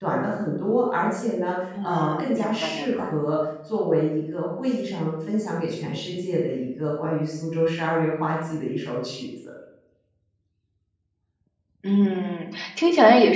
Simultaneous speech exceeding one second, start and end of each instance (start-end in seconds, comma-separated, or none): 1.8-3.2